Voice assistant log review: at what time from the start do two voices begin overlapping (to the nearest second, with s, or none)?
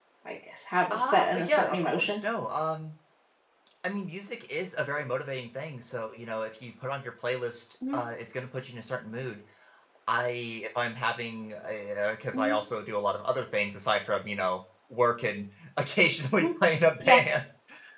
1 s